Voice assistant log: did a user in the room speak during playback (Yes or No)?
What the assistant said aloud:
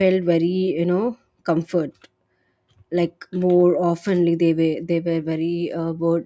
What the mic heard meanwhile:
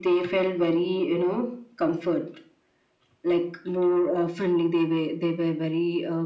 No